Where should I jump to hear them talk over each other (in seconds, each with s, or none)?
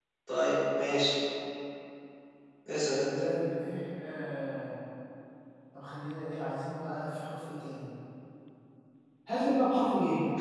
none